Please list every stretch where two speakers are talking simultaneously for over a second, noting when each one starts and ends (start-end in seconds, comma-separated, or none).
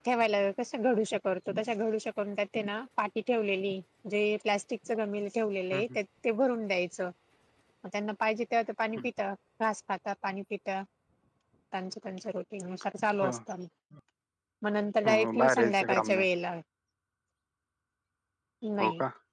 15.0-16.2